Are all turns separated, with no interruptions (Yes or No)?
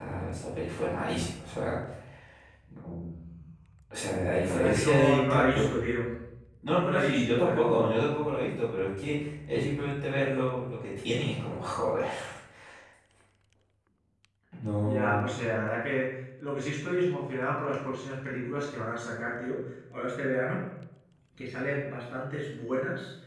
No